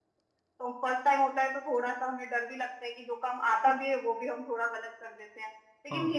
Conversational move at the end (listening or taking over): listening